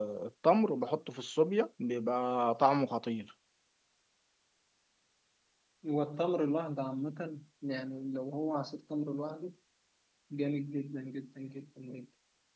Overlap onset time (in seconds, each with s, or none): none